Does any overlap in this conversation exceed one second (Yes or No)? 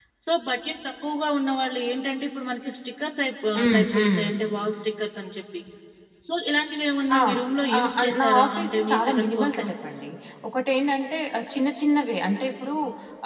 Yes